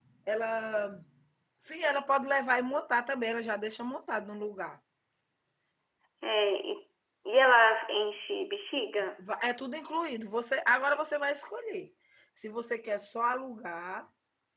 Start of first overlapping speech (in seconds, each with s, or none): none